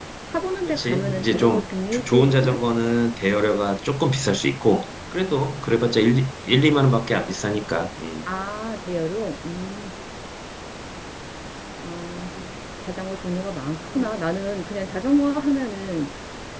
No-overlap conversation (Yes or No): No